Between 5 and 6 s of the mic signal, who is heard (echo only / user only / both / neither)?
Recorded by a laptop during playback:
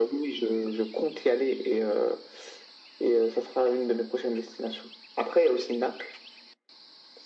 echo only